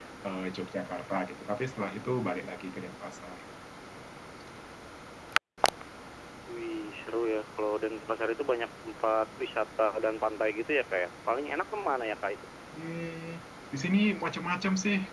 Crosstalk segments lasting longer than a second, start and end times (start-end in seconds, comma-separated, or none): none